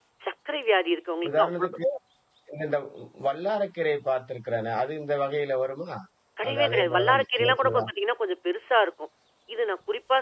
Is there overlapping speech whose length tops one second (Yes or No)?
Yes